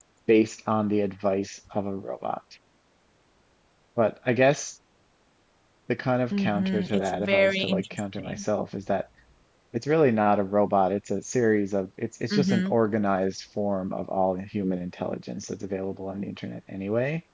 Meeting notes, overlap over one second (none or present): present